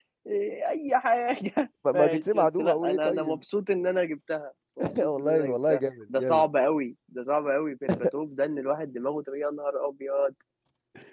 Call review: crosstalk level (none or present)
present